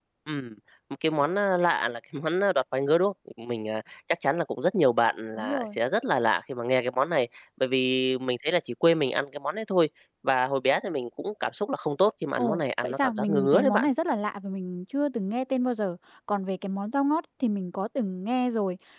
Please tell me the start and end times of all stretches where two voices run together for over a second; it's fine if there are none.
12.4-13.9

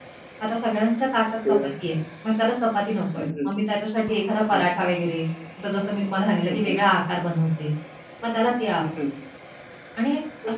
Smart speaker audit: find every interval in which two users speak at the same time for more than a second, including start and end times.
none

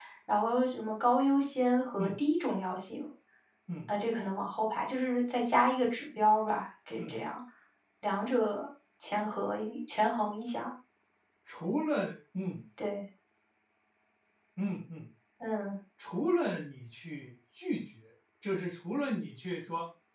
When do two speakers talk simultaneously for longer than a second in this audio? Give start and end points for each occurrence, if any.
none

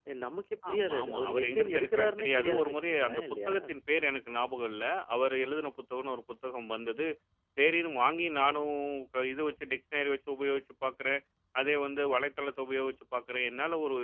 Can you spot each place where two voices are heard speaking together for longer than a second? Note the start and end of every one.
0.7-3.5

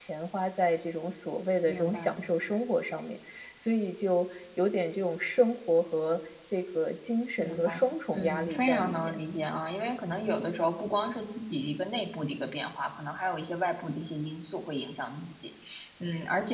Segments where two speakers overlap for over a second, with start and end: 7.4-9.2

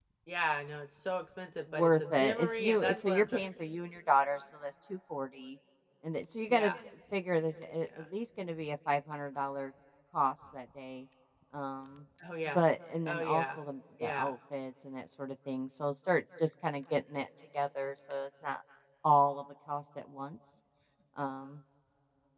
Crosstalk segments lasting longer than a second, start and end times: 1.7-3.4

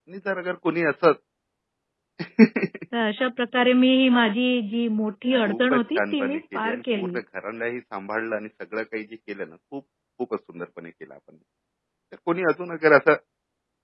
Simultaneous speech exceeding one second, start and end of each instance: 5.4-7.2

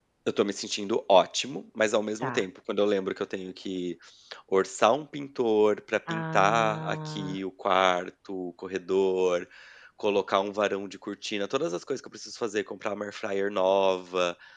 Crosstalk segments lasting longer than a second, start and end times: 6.1-7.4

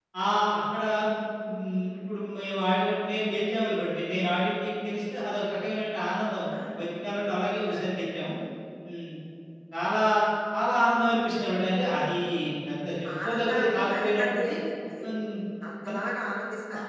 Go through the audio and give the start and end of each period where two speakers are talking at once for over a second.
13.2-14.6

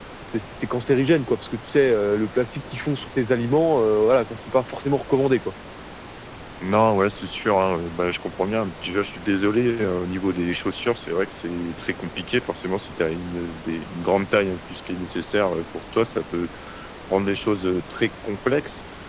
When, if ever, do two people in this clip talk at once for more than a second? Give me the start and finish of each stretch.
none

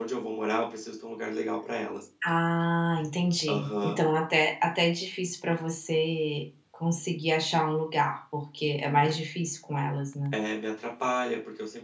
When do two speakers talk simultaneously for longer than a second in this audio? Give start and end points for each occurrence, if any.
none

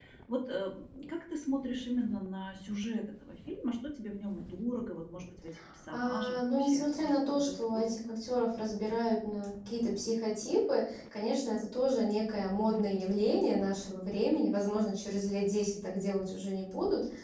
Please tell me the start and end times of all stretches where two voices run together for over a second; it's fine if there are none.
5.9-7.9

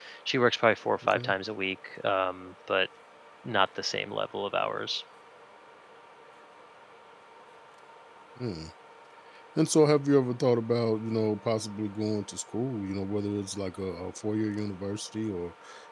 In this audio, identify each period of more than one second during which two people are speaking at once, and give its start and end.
none

